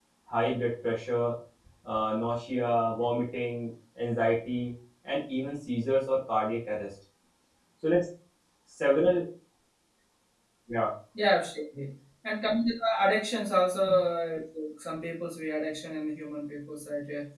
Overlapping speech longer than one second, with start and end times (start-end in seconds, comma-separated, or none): none